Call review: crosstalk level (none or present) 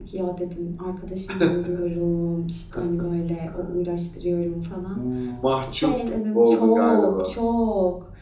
present